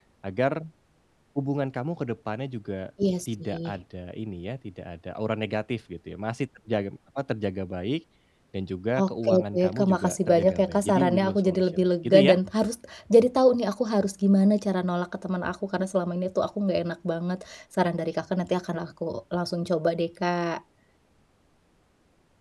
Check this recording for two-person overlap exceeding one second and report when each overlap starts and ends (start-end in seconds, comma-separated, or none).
9.1-12.3